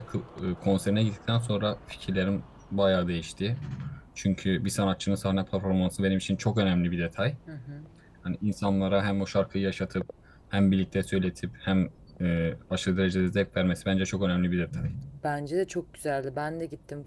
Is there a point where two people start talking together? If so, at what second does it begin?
none

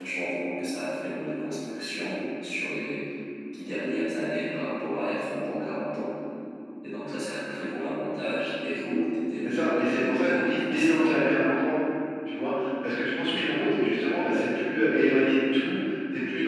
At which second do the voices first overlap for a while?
9.4 s

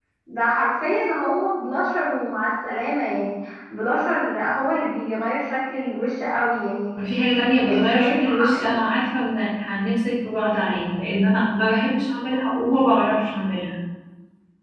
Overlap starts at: 7.6 s

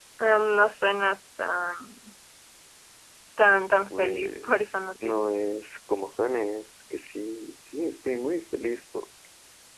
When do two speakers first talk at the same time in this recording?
3.9 s

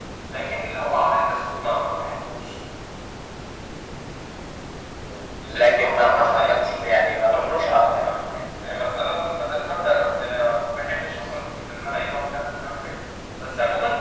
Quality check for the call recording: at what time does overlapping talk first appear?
5.6 s

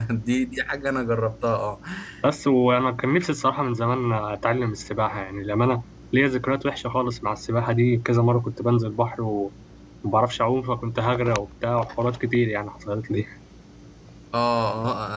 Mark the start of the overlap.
none

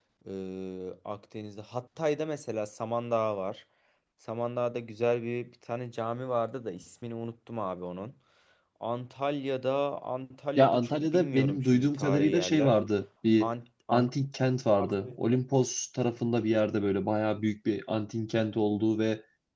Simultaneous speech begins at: 10.6 s

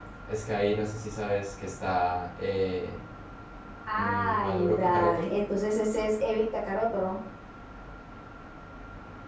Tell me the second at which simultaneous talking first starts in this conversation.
3.9 s

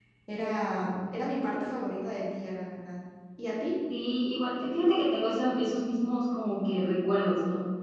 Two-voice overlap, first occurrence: none

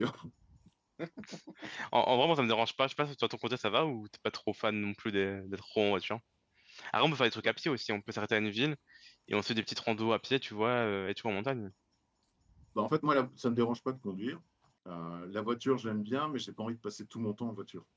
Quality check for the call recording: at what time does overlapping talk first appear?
none

